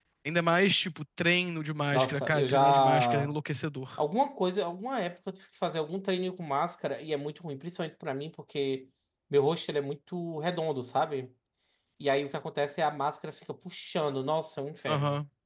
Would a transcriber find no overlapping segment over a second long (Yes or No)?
No